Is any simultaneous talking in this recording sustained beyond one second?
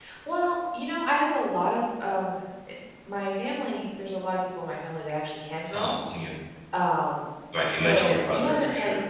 Yes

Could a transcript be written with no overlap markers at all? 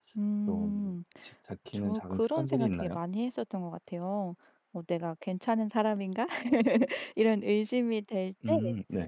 No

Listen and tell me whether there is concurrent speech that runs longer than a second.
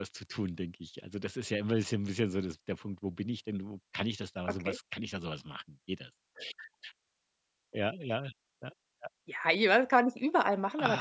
No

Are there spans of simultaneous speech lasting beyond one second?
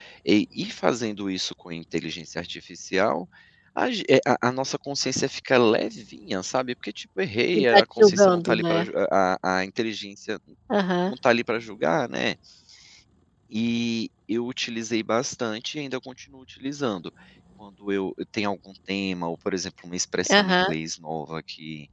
Yes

